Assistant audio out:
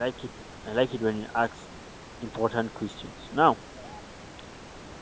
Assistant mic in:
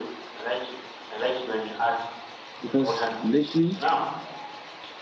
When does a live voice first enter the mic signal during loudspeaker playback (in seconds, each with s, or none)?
2.6 s